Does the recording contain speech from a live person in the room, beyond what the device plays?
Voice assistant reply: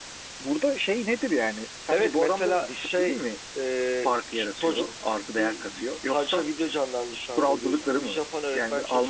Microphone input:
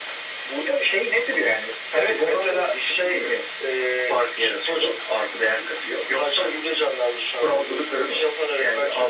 No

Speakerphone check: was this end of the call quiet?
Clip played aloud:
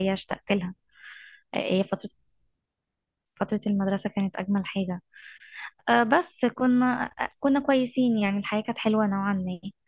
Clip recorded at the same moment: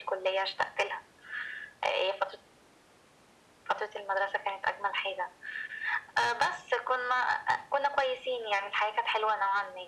Yes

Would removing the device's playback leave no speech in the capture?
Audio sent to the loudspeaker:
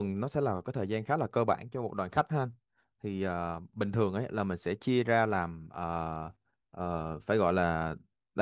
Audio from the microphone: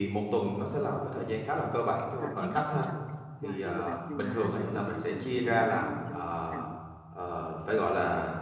No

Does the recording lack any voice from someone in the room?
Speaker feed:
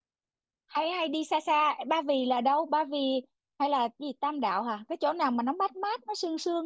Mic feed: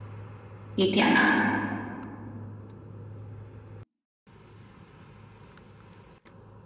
No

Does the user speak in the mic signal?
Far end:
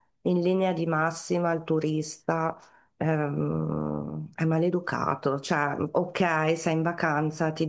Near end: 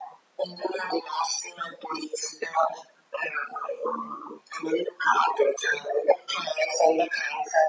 No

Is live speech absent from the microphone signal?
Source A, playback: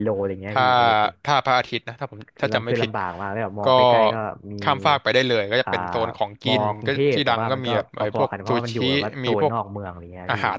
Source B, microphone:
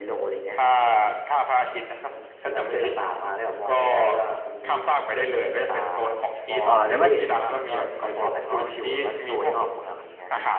No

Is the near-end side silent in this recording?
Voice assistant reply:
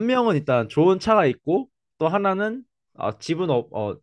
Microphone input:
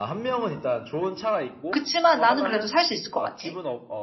No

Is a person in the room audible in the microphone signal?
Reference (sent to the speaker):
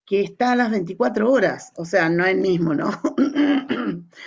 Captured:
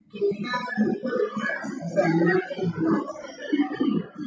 No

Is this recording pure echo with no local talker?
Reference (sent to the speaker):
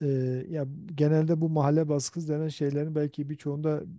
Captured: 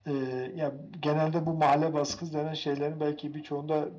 Yes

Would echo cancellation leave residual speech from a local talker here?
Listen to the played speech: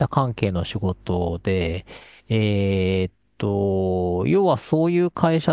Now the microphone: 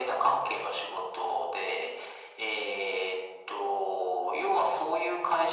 No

